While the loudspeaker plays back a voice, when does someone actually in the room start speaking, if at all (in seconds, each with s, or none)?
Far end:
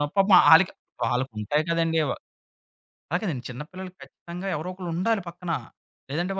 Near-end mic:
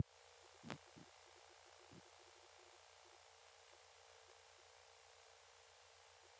none